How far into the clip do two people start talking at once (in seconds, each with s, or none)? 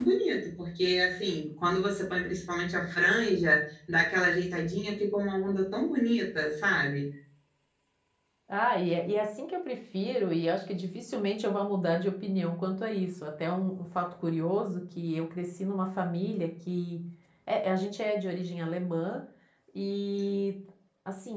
none